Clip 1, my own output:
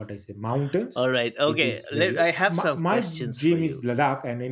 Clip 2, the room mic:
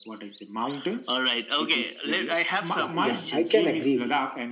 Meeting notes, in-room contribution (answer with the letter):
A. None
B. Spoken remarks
B